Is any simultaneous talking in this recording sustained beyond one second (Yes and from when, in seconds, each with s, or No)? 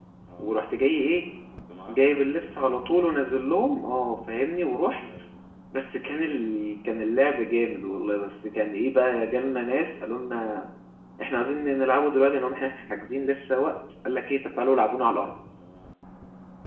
No